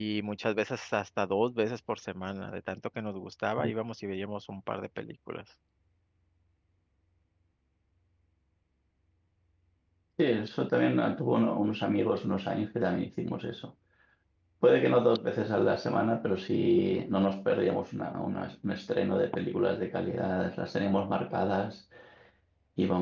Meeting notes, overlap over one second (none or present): none